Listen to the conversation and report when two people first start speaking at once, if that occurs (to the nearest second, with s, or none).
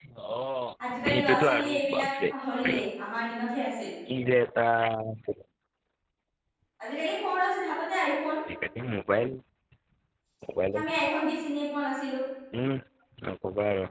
1 s